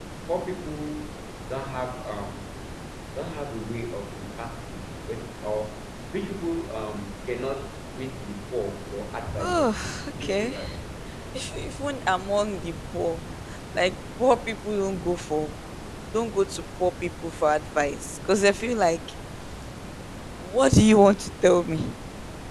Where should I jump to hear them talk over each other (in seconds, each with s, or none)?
9.4 s